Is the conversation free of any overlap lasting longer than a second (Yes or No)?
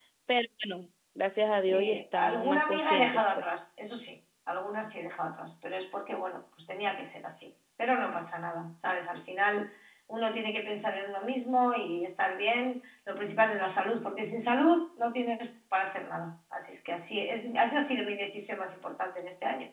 No